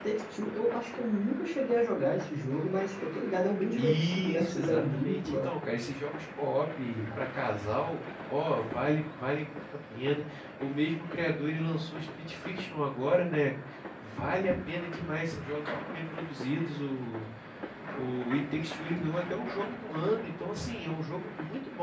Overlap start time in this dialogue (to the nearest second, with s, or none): 4 s